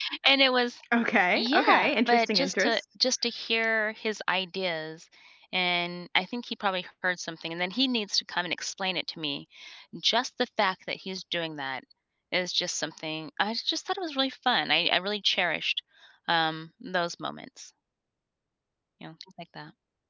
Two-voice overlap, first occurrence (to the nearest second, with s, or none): 1 s